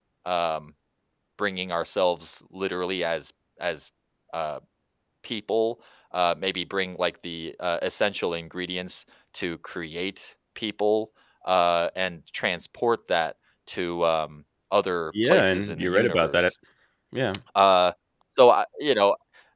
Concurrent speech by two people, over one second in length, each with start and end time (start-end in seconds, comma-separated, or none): 15.2-16.5